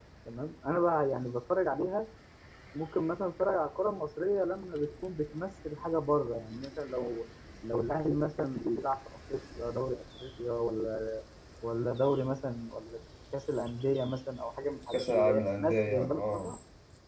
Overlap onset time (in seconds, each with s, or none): 14.9 s